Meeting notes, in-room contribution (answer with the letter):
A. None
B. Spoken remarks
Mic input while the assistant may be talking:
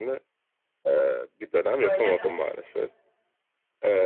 B